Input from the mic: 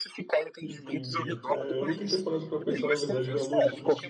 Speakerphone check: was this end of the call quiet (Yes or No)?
No